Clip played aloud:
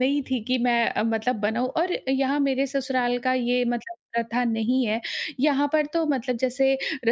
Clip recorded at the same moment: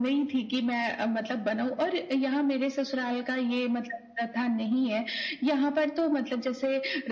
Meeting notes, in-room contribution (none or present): none